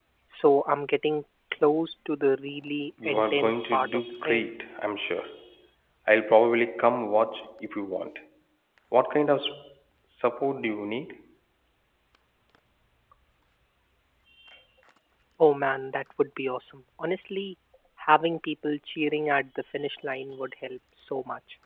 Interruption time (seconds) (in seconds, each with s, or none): 3.0 s